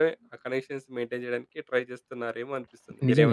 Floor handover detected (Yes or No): Yes